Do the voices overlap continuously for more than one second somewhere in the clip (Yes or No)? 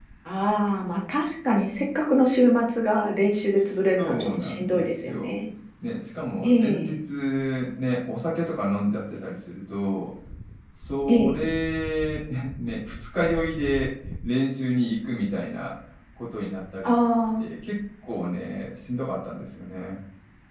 Yes